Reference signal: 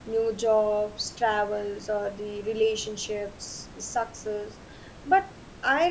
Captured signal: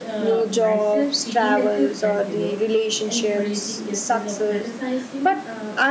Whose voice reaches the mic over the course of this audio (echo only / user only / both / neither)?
both